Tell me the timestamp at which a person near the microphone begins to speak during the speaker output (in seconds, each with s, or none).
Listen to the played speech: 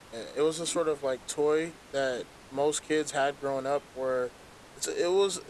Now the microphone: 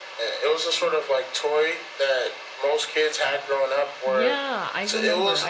4.0 s